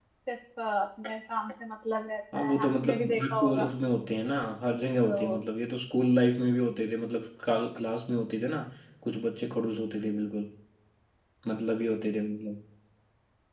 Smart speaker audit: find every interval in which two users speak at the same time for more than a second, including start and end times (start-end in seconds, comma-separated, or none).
2.3-3.7